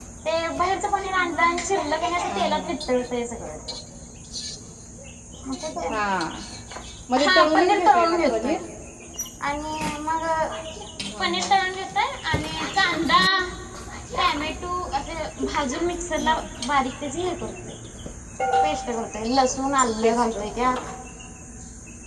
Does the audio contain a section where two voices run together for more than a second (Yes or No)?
Yes